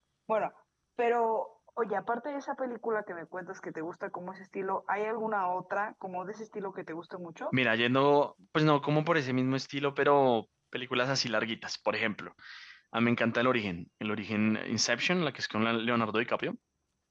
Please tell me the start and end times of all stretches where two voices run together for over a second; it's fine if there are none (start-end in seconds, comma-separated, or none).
none